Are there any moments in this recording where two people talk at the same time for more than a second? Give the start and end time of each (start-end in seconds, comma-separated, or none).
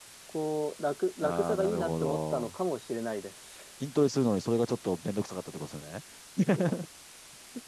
1.2-2.5